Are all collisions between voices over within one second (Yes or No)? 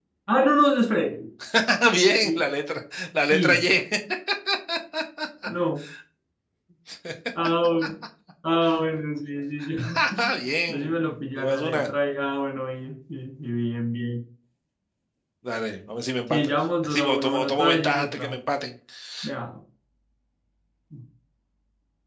No